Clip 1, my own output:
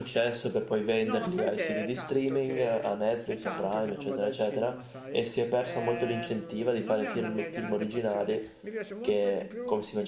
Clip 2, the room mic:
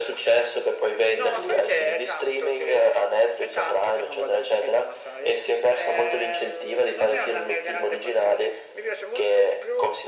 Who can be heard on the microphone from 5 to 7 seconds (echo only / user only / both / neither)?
echo only